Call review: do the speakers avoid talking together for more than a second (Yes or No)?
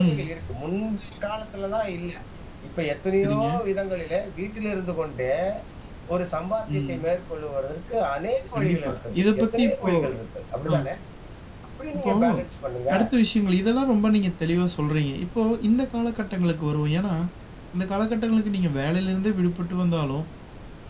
No